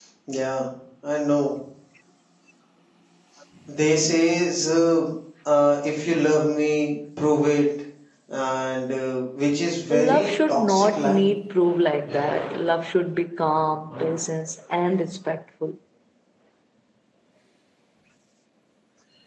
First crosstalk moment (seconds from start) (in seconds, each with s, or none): 9.9 s